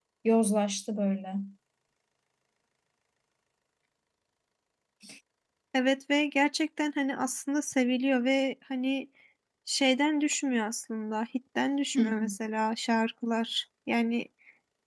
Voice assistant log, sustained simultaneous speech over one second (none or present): none